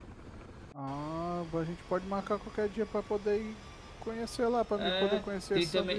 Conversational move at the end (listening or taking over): taking over